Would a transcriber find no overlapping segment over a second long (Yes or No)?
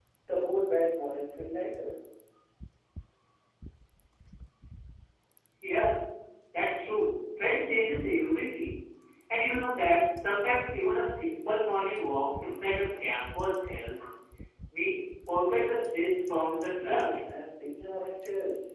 Yes